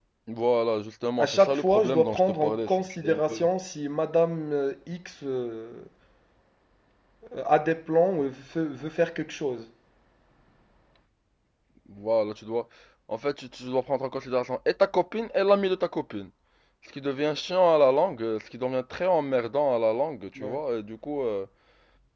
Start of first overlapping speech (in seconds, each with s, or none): 1.2 s